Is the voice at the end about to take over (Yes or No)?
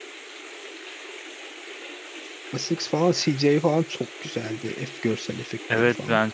Yes